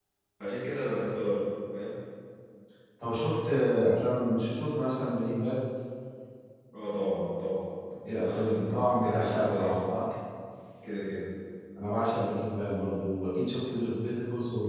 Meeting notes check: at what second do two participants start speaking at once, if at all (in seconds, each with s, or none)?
8.1 s